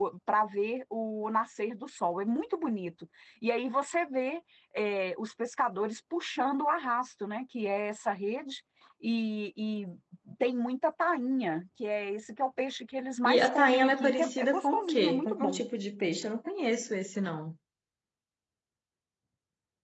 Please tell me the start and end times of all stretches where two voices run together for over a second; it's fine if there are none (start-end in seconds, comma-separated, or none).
13.2-15.6